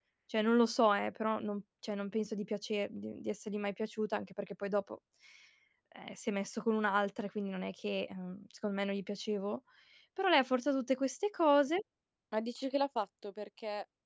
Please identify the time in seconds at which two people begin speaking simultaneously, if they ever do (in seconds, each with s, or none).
none